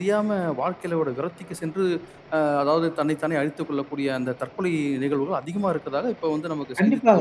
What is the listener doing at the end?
taking over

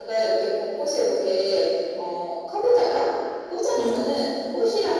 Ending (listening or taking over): listening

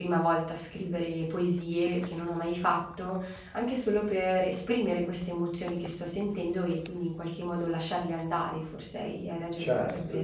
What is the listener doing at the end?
taking over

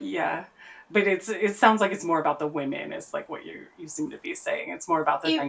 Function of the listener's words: taking over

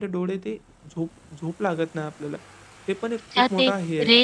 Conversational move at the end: taking over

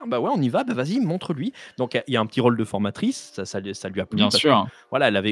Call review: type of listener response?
listening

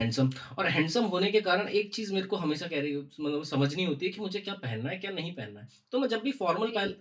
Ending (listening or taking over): listening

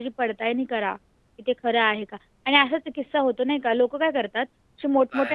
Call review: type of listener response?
listening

